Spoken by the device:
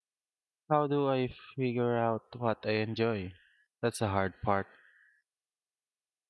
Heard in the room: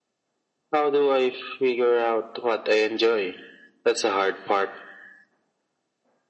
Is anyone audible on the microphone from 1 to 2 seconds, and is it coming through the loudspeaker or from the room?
echo only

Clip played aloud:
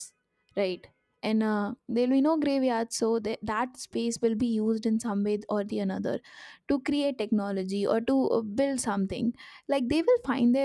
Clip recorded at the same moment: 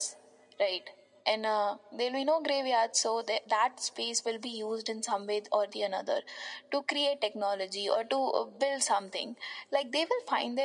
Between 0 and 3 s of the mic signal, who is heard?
echo only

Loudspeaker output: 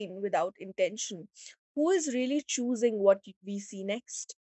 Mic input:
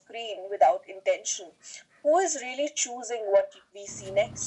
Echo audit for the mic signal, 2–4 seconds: echo only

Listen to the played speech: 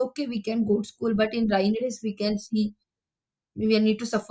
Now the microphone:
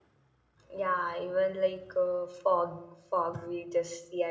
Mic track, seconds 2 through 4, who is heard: user only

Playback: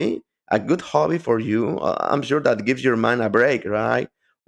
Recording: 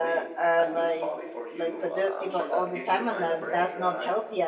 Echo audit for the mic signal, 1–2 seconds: both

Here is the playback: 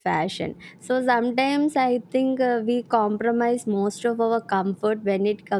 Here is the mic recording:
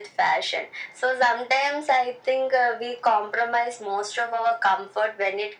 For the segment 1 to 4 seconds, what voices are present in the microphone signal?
echo only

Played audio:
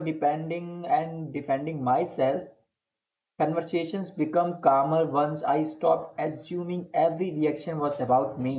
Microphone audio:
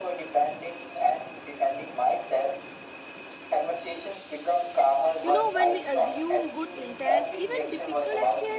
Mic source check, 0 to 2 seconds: echo only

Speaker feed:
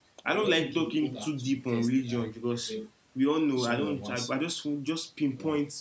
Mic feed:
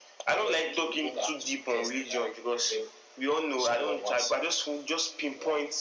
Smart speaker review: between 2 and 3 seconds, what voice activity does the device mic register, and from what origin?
echo only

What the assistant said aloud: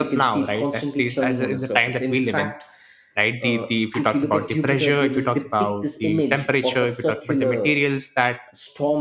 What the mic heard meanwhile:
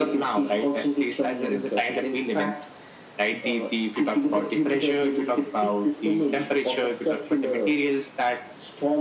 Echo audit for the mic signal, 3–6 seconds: echo only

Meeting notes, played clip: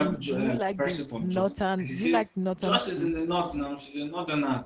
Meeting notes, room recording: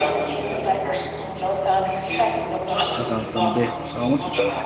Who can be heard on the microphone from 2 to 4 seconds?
both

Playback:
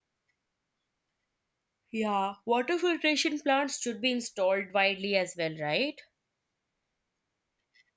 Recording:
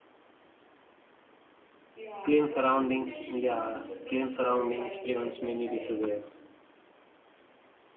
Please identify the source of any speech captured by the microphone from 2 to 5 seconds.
both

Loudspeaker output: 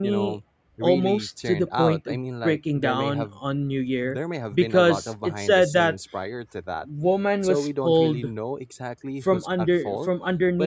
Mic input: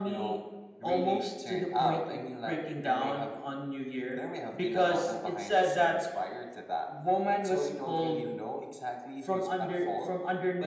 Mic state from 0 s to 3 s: echo only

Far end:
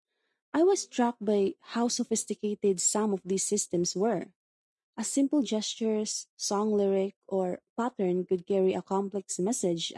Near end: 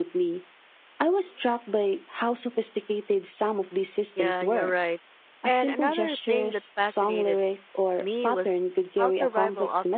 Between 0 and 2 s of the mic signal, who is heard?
echo only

